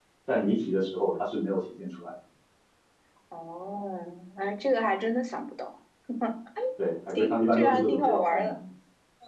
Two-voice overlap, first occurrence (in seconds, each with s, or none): 7.2 s